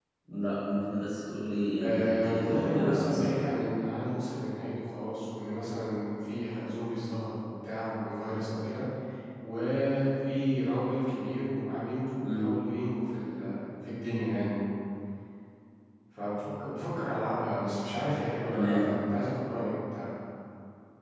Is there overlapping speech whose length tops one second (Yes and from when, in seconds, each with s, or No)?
Yes, from 1.8 s